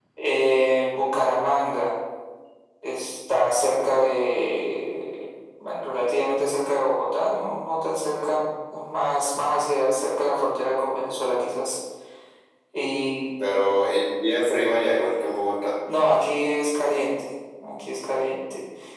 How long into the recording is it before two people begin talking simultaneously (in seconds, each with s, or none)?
none